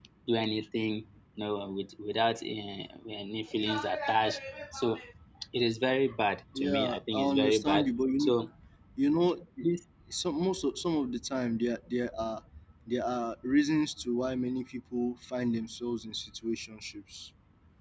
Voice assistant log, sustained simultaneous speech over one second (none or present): present